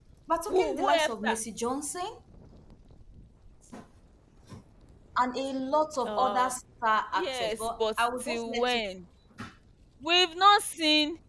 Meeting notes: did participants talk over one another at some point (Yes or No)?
Yes